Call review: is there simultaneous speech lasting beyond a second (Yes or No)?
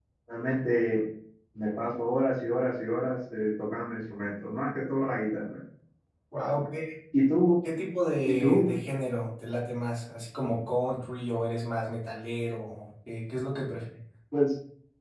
No